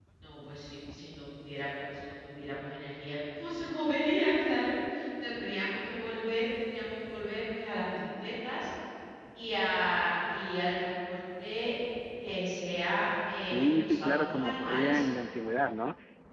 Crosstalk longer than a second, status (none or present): present